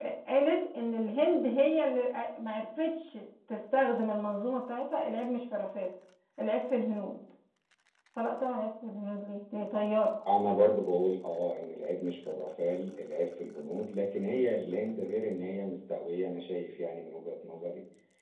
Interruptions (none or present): none